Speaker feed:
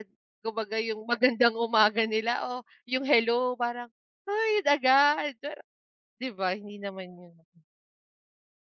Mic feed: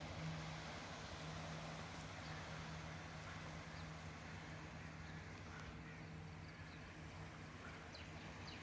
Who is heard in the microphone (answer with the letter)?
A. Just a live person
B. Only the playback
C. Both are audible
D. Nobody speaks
D